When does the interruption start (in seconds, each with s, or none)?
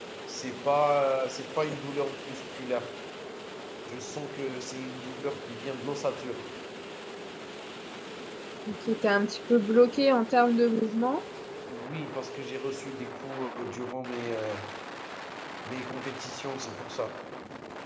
none